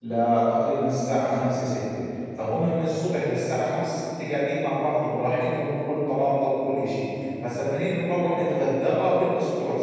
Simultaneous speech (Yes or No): No